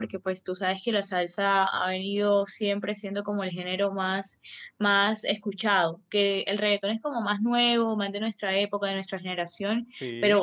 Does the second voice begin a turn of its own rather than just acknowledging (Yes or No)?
No